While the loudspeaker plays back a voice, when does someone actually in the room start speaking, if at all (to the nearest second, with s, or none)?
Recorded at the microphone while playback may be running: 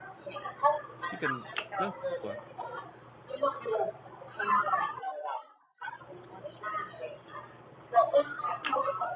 1 s